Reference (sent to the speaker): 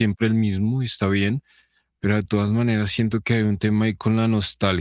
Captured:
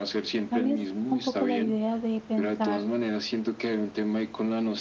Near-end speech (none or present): present